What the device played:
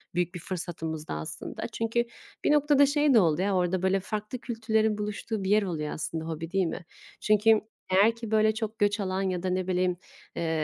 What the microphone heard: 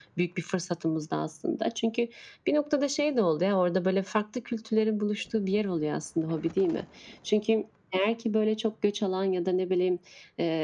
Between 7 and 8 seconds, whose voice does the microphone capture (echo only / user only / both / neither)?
echo only